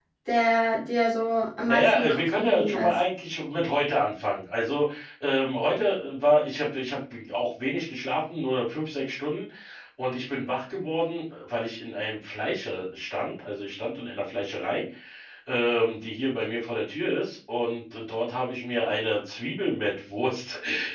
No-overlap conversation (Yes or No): No